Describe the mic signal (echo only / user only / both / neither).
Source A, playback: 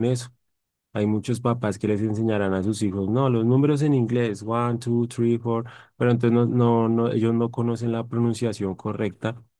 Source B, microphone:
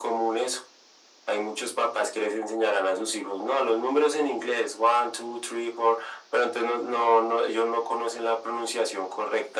echo only